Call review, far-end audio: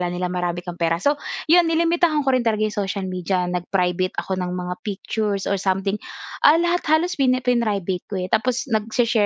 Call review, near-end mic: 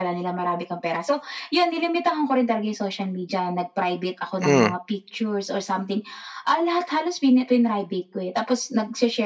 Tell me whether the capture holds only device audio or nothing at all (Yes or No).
No